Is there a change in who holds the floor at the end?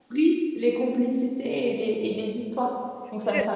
Yes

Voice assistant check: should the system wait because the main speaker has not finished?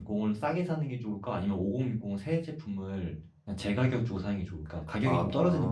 No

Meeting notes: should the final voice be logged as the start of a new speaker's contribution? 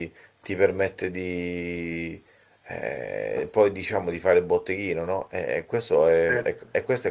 No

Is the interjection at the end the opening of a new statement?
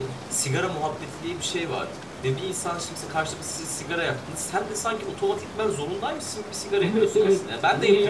Yes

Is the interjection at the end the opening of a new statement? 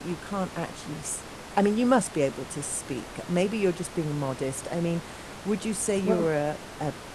No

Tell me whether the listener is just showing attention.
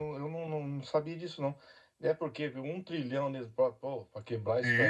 No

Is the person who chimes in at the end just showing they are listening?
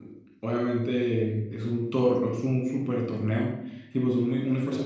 Yes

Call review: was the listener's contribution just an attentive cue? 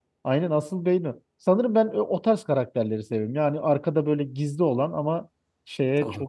No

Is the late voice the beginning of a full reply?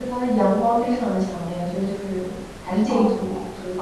Yes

